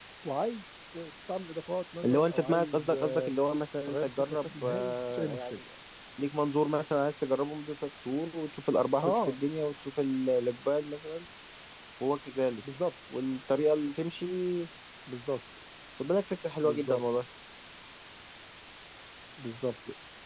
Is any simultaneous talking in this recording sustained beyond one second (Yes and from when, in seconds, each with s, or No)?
Yes, from 2.0 s